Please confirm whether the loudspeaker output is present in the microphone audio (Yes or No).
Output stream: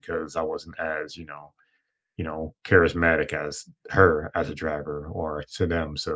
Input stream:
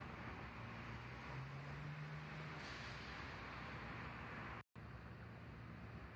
No